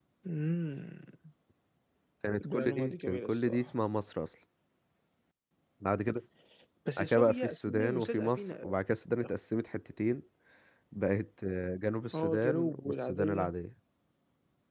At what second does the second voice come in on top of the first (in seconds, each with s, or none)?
2.5 s